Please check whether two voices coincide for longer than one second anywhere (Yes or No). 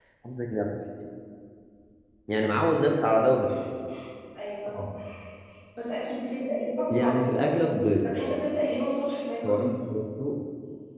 No